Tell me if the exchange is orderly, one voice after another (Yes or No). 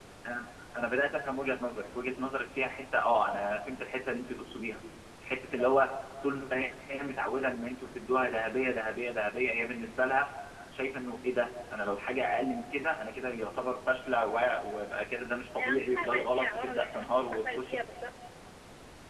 No